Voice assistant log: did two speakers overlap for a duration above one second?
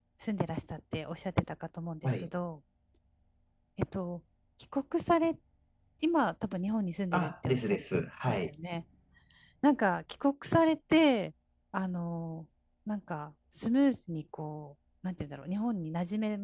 Yes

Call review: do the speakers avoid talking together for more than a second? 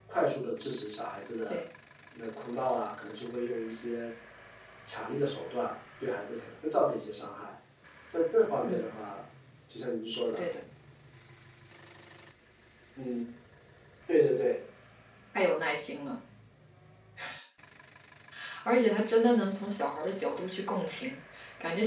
Yes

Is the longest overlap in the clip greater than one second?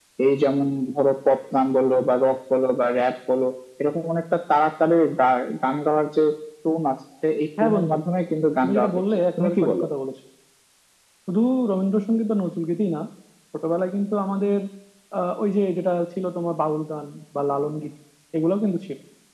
Yes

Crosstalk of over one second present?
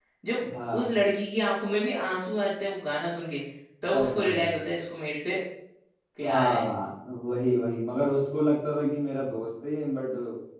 No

